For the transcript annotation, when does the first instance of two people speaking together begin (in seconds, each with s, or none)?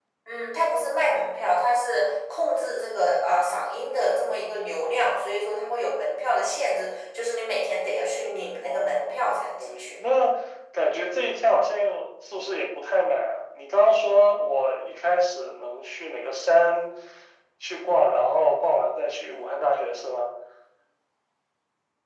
8.6 s